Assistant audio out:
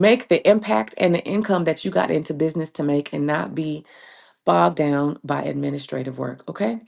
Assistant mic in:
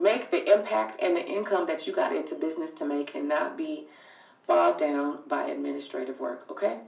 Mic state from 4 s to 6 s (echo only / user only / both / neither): echo only